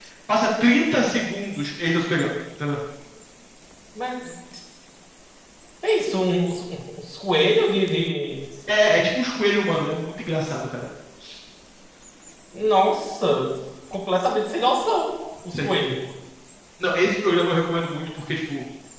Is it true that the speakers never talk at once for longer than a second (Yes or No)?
Yes